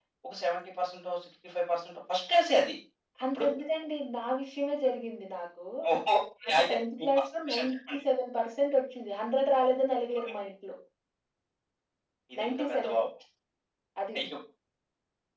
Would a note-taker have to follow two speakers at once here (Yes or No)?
Yes